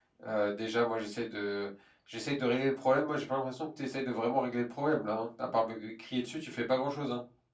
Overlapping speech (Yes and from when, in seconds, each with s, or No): No